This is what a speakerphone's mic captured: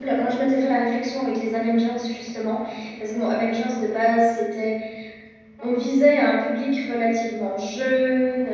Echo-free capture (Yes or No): Yes